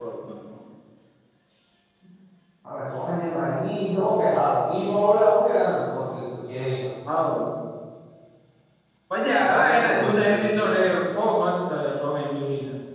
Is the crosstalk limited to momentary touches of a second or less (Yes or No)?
No